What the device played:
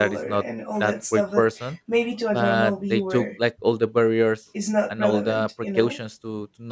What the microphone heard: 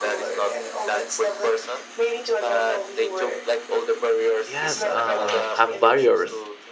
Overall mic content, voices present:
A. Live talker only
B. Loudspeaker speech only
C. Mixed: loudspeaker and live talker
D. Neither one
C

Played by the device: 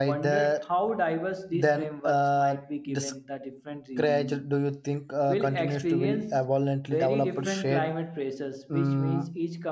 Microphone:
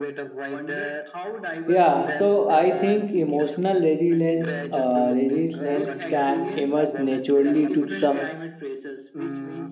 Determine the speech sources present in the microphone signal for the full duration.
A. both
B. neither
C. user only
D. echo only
A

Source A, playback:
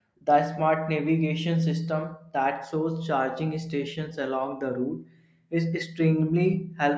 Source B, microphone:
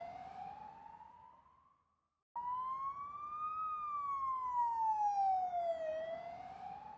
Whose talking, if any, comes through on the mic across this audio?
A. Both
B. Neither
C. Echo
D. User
B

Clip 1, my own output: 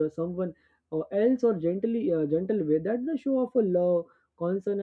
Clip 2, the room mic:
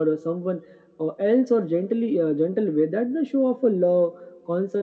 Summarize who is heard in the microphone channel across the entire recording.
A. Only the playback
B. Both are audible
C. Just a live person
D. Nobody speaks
A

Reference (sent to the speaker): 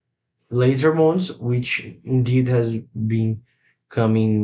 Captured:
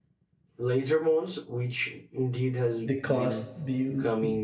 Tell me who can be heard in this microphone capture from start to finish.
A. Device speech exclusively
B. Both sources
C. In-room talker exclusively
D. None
B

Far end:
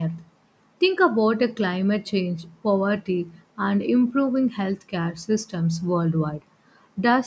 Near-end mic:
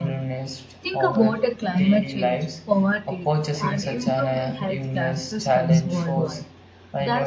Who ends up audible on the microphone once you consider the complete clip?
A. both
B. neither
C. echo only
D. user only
A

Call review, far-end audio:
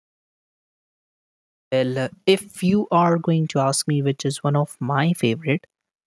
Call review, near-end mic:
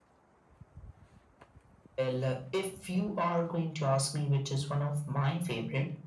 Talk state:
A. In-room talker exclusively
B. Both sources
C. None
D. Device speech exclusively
D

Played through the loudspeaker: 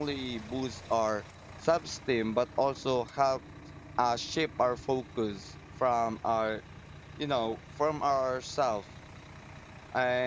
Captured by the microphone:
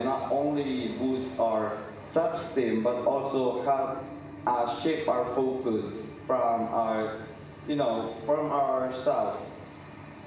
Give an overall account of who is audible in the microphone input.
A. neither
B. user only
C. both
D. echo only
D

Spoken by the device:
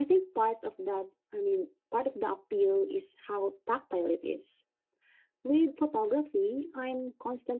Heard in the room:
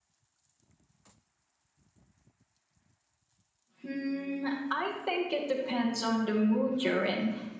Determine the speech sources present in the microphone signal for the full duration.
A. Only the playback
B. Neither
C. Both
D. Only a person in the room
D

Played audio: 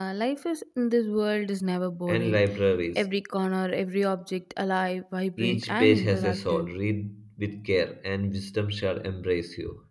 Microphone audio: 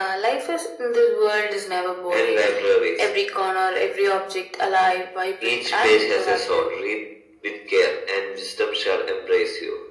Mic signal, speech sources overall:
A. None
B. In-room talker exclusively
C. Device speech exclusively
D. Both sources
C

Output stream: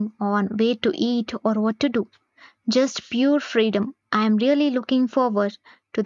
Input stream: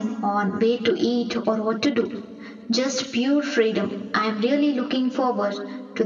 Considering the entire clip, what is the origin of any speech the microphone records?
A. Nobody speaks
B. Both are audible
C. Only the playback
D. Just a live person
C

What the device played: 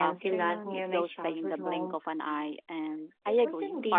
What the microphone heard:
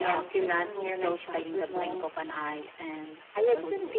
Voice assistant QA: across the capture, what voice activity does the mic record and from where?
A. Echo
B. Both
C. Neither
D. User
A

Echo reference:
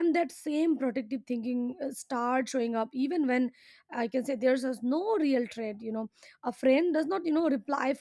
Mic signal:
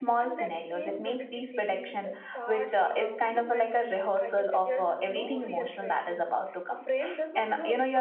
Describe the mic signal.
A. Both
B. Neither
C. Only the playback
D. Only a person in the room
A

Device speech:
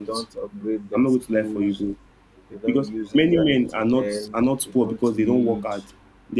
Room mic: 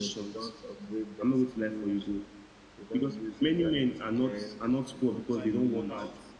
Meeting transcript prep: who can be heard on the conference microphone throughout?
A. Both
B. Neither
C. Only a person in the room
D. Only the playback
A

